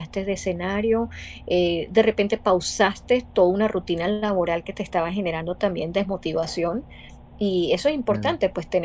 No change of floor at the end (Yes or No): Yes